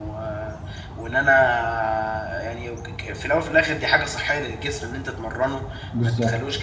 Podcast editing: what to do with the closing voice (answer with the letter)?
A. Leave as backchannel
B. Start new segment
A